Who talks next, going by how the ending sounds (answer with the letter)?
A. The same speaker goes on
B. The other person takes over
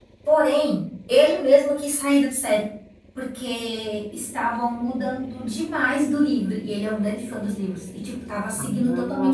B